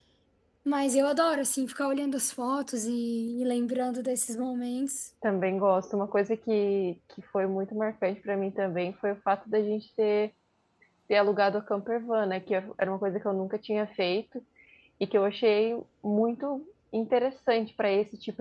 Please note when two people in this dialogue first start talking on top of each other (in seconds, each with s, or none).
none